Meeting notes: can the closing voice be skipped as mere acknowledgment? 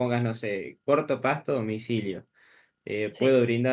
Yes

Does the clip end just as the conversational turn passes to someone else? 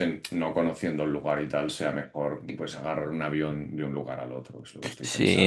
Yes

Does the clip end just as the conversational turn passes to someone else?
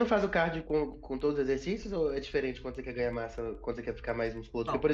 No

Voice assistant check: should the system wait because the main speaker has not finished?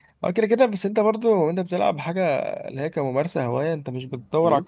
Yes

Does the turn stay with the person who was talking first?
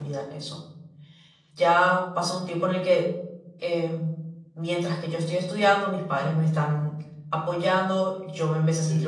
Yes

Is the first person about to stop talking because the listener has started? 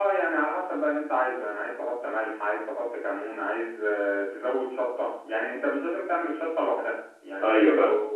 No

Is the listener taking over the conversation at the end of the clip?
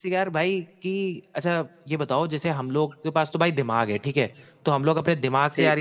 No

